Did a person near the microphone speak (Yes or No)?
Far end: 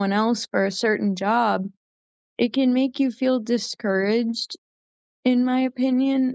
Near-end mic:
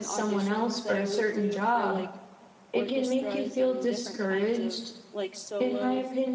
Yes